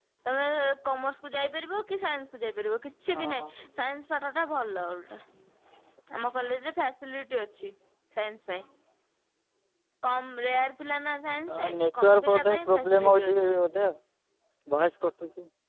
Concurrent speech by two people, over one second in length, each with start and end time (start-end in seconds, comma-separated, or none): 11.6-13.6